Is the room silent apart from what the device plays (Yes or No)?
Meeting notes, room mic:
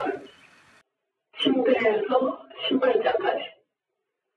Yes